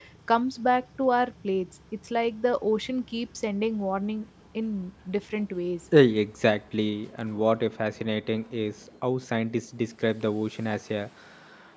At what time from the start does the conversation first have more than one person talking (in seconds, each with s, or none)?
none